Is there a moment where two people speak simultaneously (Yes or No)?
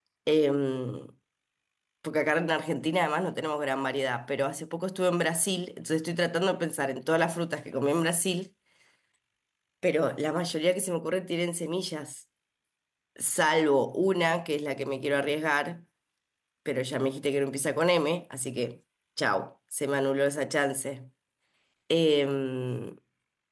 No